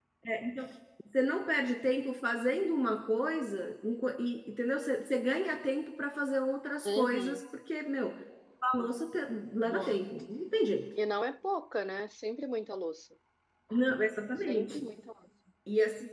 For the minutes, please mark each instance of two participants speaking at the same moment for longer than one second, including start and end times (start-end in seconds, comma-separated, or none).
none